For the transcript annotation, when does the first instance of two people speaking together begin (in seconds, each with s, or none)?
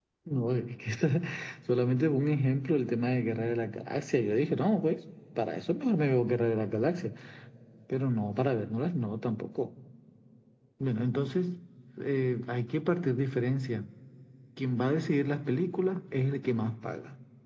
none